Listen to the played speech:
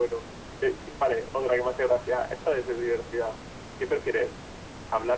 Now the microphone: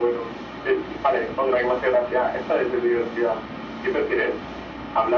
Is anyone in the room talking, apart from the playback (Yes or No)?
No